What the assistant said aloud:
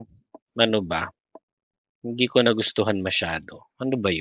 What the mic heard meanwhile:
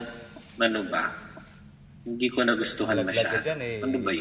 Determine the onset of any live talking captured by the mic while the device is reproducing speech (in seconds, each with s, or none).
2.8 s